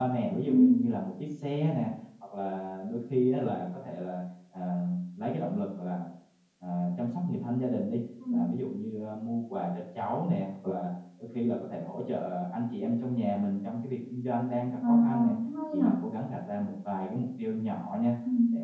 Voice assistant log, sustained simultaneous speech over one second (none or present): none